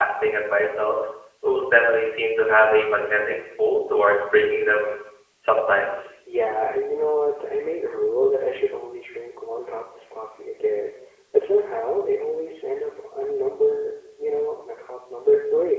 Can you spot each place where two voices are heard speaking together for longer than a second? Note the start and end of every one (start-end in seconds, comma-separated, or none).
none